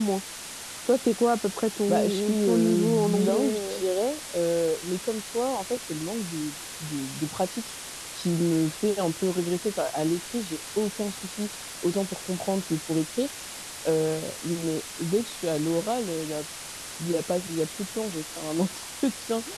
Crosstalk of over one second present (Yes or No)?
Yes